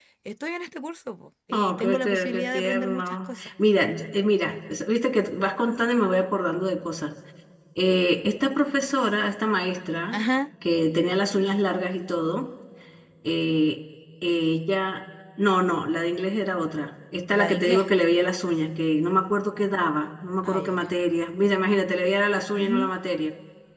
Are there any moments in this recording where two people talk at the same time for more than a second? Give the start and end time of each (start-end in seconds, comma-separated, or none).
1.5-3.5